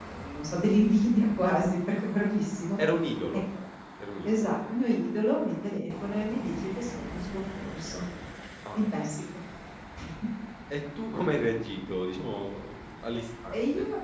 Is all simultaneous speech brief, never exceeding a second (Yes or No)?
Yes